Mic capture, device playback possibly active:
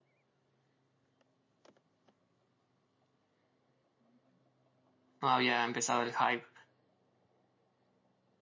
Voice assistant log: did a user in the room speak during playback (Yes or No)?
Yes